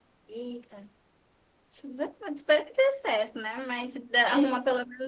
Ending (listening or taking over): listening